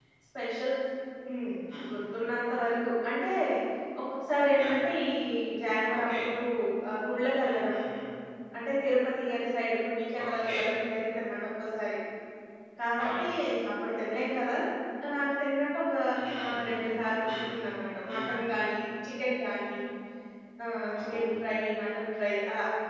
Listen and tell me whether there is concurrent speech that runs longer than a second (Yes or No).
No